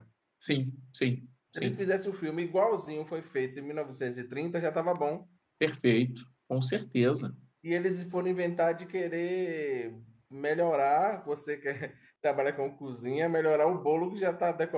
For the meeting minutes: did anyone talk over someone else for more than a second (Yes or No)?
No